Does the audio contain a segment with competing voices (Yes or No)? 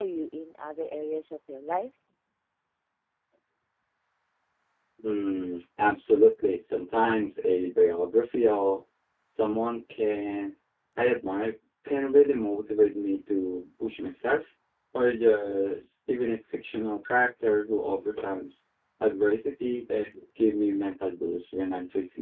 No